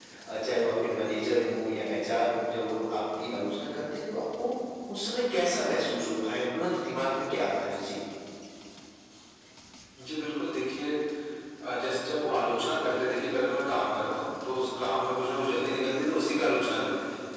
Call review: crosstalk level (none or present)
none